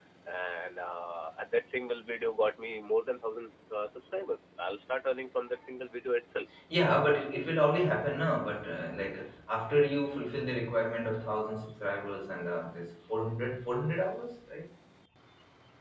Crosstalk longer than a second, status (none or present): none